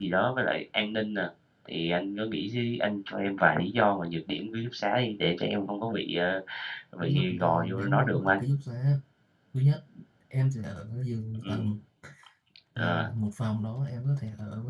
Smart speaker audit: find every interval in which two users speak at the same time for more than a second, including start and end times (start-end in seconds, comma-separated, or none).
7.0-8.4